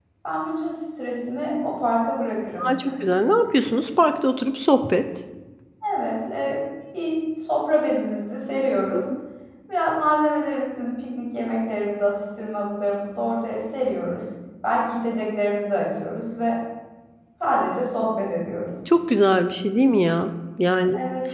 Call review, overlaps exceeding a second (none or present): none